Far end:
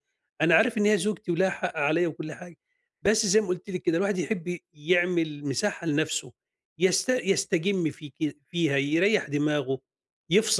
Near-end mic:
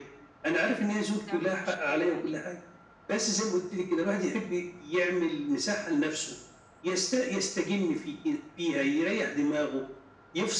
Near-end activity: present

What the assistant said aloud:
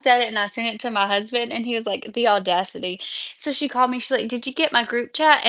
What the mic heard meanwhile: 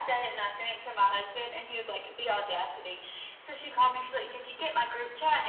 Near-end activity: none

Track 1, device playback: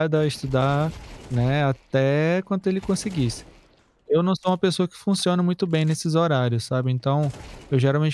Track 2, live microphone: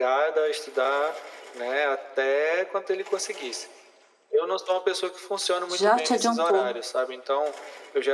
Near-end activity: present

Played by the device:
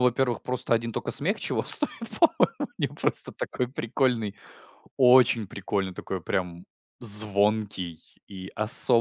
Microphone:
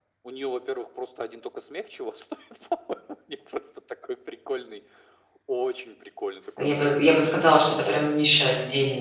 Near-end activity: present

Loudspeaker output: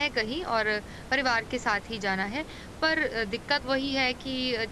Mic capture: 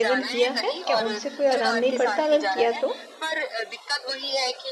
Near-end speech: present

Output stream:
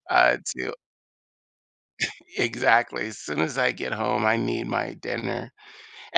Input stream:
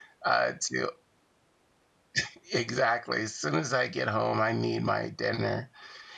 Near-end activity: none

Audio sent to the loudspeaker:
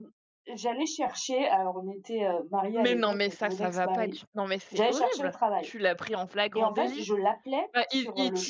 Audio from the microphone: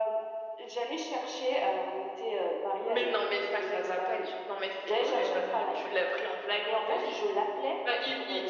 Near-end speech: present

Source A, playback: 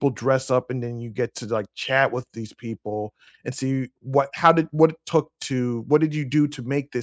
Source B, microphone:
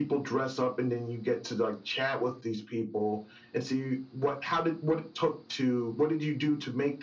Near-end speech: none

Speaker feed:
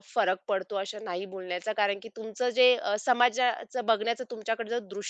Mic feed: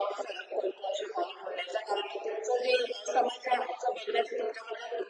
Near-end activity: none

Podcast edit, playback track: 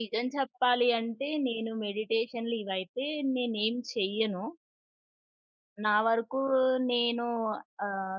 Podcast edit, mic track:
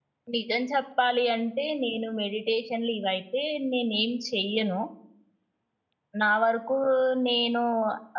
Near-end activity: none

